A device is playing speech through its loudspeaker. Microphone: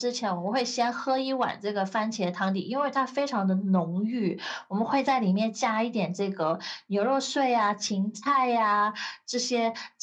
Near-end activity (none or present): none